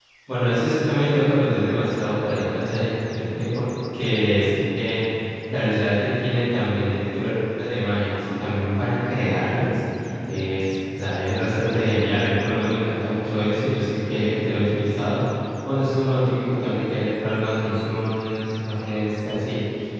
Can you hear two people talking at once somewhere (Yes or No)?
No